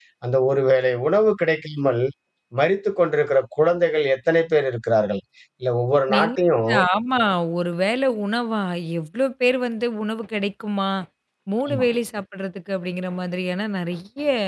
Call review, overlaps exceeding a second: none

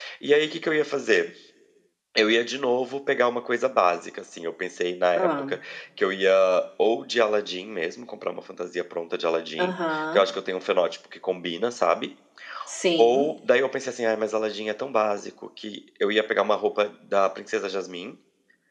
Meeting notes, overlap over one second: none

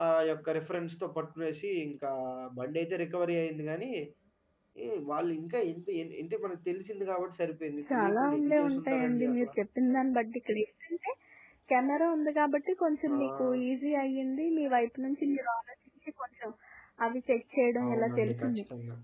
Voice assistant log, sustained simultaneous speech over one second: present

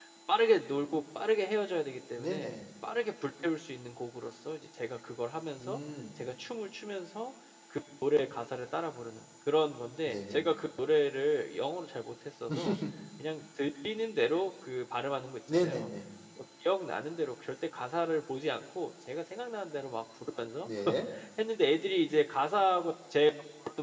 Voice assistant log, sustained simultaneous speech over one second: none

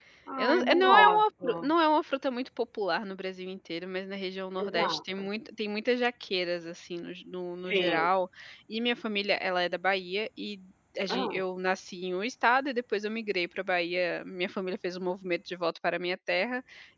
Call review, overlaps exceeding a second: present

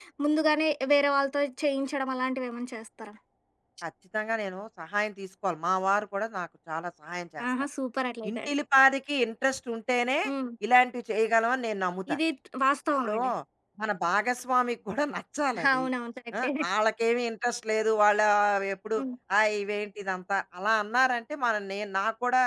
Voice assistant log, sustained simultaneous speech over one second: none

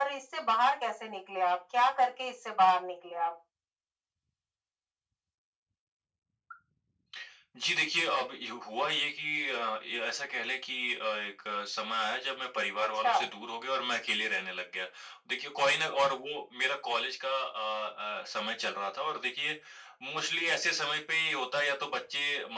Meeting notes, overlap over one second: none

